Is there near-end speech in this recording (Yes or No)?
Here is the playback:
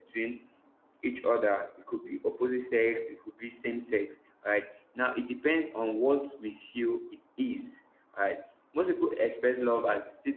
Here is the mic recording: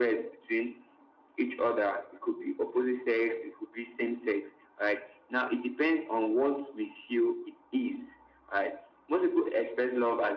No